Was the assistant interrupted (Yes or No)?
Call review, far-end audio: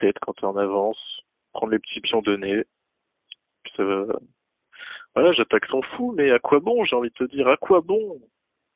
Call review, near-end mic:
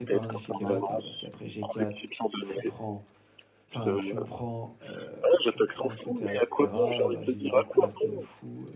Yes